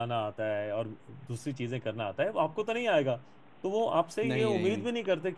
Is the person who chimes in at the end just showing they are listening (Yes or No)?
Yes